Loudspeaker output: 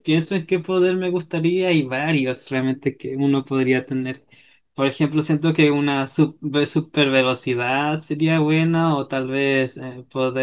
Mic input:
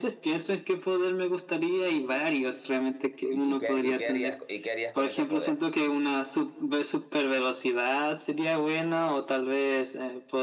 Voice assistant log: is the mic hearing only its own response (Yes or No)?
No